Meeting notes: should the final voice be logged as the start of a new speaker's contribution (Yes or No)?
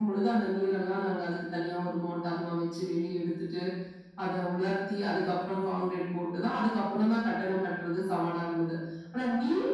No